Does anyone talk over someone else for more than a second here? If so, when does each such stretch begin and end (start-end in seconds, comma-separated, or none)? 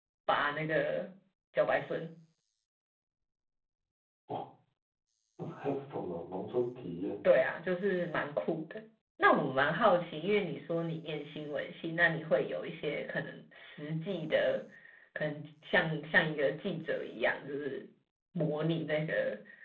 none